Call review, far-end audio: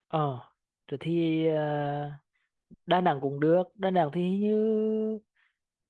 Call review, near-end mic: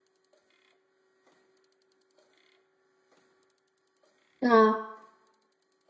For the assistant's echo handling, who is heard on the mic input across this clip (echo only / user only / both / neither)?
user only